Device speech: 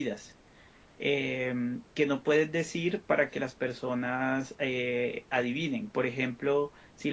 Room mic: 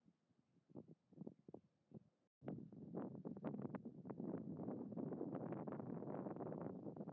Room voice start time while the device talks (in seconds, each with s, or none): none